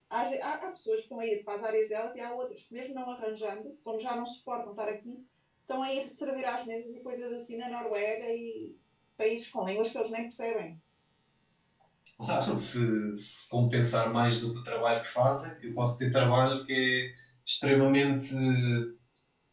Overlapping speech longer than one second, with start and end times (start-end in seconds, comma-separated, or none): none